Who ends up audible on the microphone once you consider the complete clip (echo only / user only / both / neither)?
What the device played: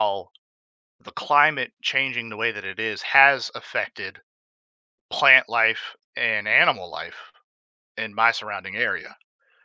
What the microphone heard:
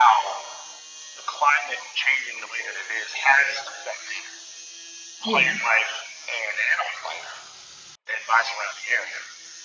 both